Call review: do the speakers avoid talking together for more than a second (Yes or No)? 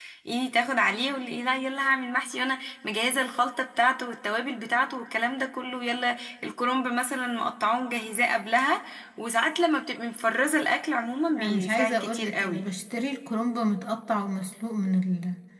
No